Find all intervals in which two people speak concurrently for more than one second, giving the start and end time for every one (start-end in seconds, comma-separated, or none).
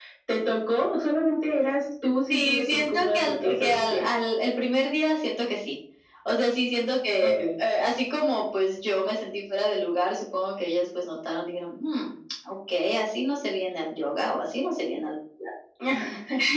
2.3-4.0